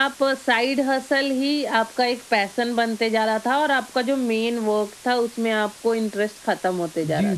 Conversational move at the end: taking over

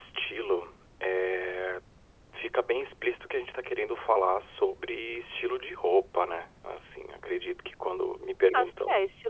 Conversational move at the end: taking over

